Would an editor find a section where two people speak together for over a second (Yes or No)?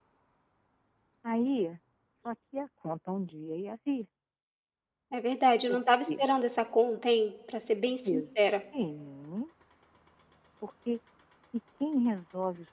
No